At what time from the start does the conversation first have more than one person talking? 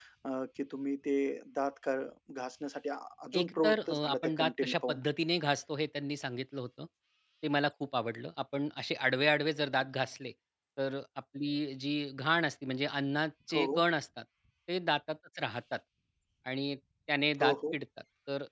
3.4 s

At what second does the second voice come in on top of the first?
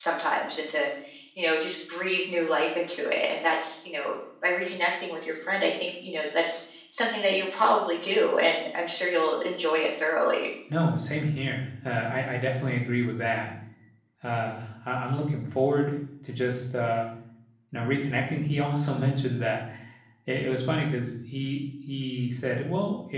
none

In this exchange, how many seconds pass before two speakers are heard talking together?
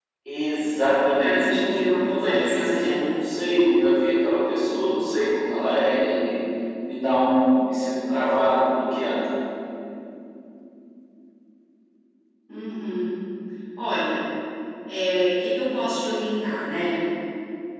1.2 s

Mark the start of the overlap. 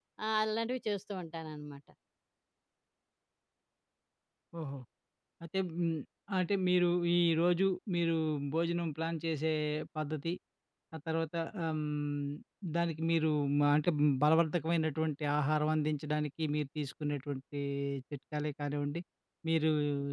none

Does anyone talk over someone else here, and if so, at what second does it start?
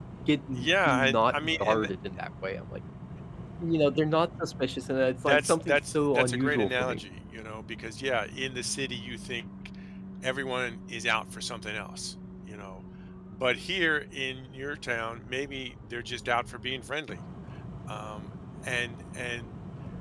0.6 s

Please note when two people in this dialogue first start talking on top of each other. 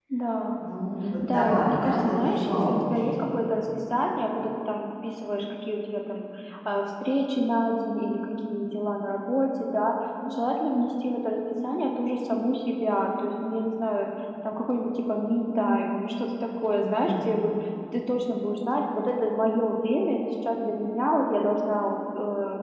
1.2 s

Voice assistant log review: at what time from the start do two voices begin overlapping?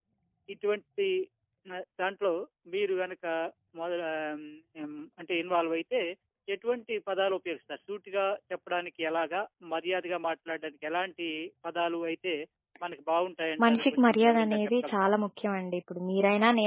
13.6 s

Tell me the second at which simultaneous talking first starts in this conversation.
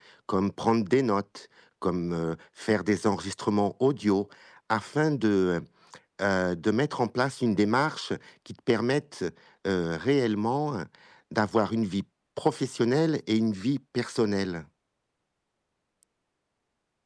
none

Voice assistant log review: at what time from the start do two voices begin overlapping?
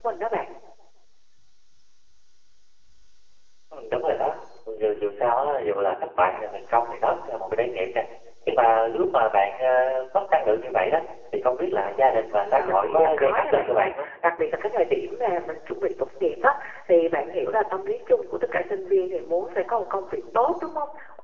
12.4 s

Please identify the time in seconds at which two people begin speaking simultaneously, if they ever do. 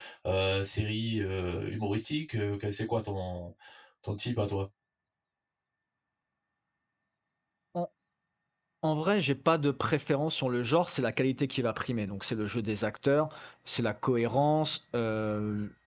none

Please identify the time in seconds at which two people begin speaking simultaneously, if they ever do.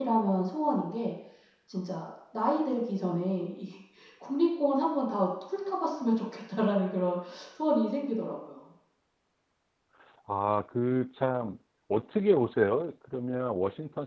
none

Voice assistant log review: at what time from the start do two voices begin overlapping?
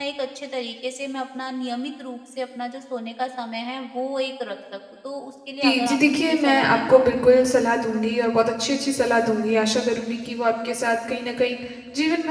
5.6 s

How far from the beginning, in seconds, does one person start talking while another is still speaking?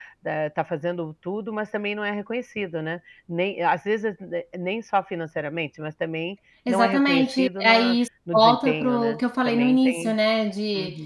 6.7 s

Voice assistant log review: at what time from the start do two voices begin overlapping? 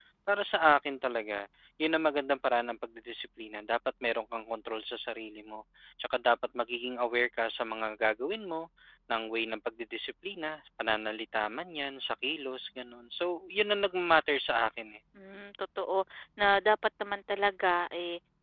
none

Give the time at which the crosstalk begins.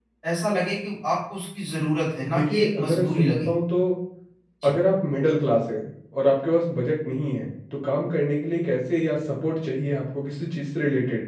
2.2 s

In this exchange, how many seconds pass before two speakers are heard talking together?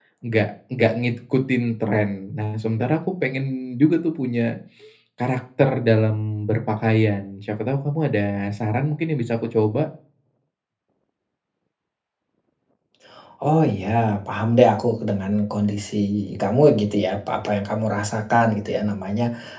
none

